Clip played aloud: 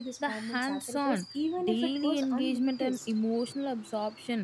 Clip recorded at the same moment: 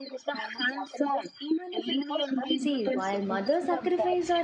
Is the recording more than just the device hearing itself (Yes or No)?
Yes